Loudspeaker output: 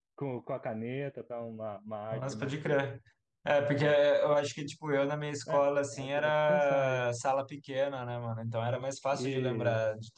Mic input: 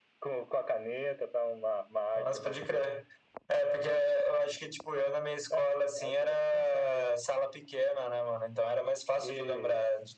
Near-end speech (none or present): none